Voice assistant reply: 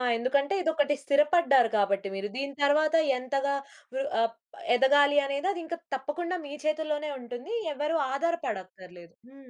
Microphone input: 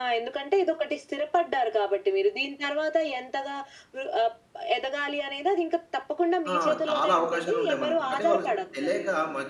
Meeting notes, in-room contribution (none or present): present